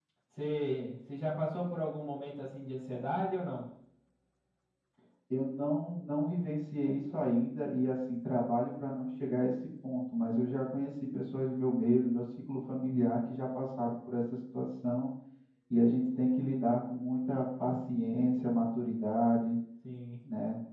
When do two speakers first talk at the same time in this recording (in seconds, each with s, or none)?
none